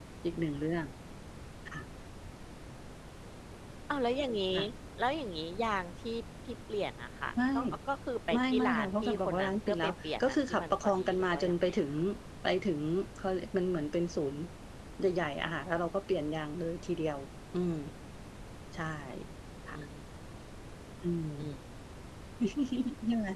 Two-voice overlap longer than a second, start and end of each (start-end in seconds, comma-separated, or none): 8.3-11.8